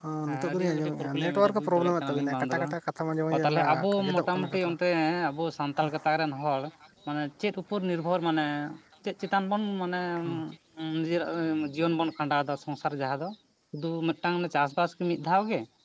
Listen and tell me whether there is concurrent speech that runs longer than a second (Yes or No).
Yes